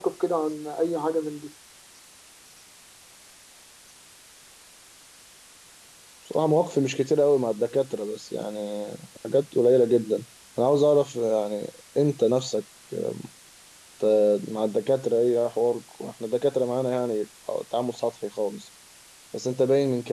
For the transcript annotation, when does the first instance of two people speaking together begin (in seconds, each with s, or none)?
none